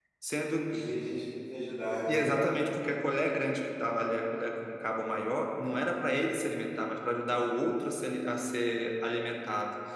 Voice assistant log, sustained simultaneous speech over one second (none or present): none